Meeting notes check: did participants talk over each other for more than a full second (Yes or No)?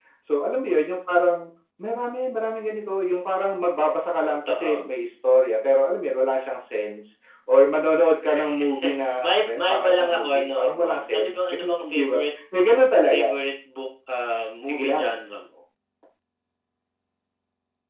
Yes